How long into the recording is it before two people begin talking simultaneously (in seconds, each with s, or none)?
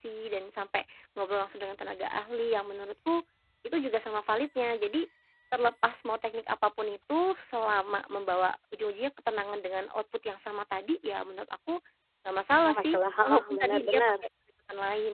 12.6 s